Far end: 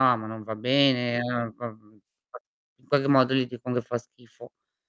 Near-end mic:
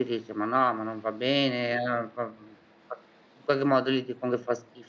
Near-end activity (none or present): none